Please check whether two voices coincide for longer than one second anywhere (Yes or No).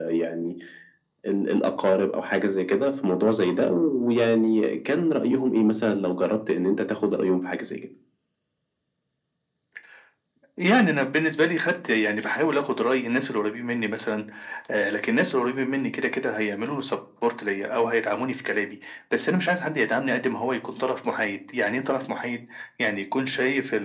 No